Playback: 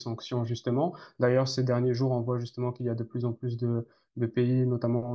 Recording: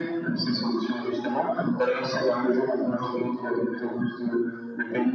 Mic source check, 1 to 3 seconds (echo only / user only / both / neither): echo only